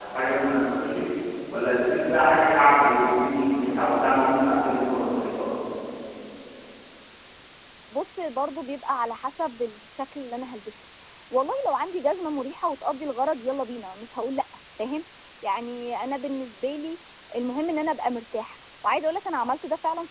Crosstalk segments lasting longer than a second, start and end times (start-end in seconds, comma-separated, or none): none